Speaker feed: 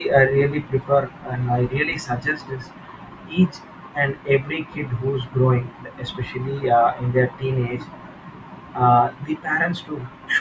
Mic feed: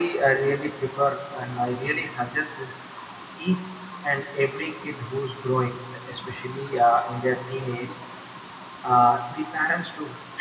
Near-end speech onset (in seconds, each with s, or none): none